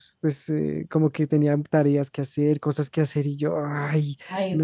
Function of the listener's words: listening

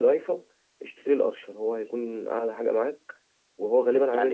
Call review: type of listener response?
taking over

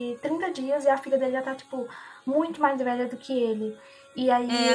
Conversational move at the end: taking over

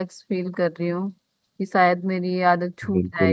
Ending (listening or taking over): taking over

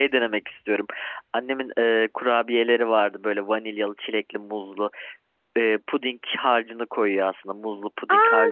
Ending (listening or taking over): taking over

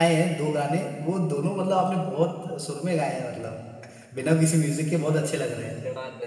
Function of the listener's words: taking over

